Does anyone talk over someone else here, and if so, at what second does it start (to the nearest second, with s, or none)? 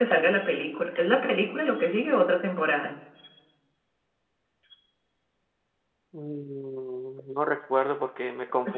none